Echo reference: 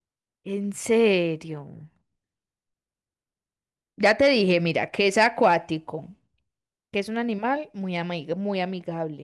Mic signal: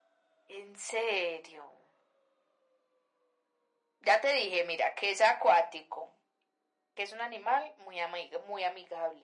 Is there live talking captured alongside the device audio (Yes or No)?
No